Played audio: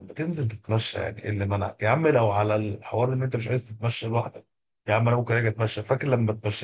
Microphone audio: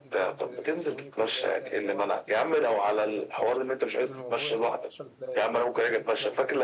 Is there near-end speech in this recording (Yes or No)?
Yes